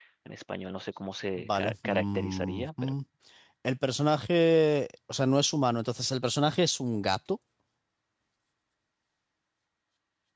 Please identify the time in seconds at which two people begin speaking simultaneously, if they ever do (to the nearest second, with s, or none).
1 s